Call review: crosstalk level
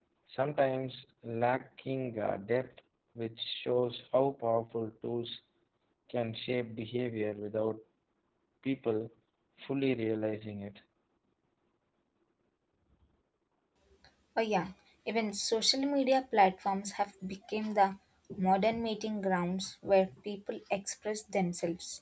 none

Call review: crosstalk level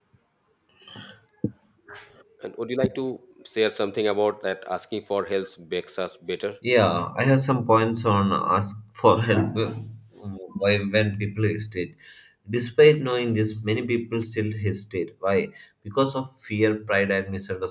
none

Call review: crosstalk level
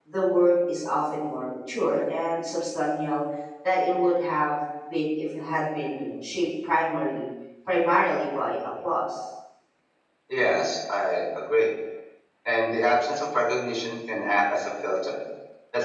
none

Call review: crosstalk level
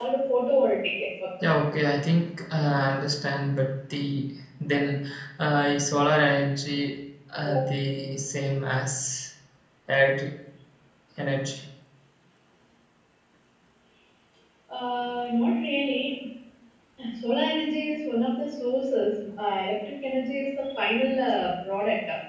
none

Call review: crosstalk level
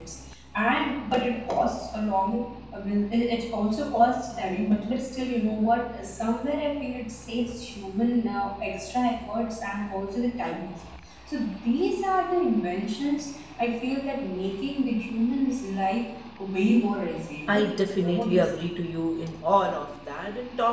present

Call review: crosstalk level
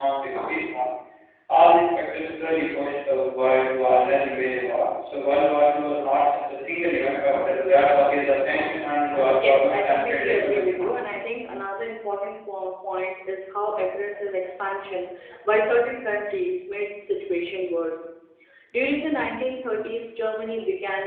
present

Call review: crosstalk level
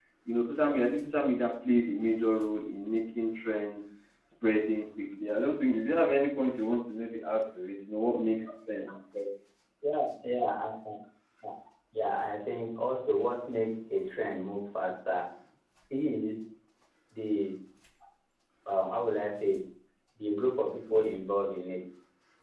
none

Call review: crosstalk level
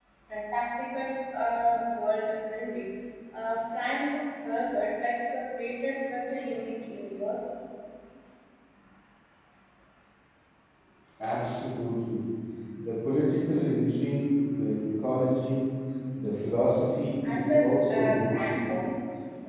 present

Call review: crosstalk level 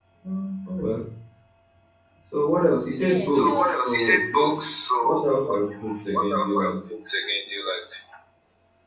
present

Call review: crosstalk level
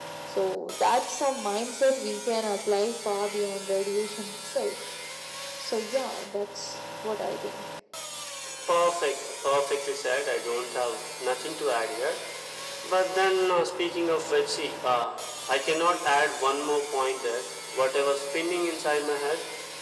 none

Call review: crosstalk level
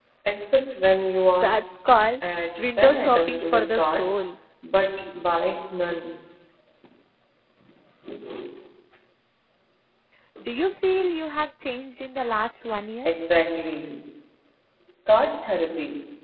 present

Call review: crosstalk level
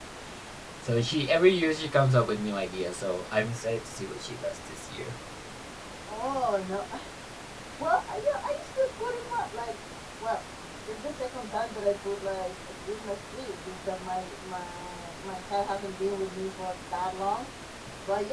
none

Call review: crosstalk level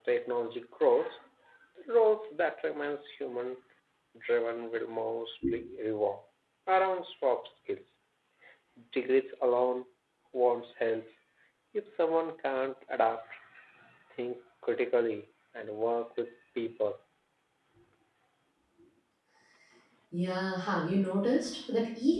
none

